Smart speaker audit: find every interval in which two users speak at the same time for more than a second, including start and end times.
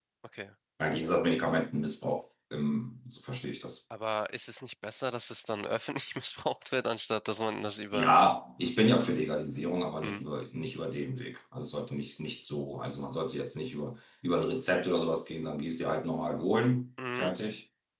none

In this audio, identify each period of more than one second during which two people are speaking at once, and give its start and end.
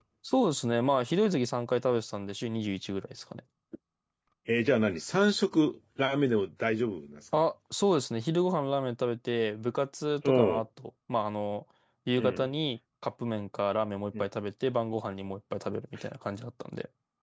none

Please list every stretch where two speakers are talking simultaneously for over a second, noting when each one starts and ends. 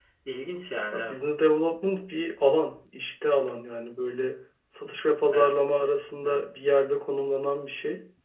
none

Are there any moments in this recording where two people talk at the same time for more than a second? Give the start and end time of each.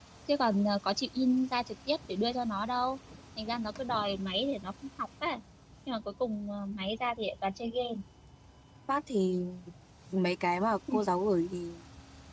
none

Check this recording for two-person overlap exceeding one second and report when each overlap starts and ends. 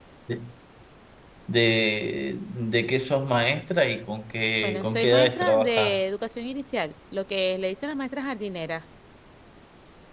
4.6-6.0

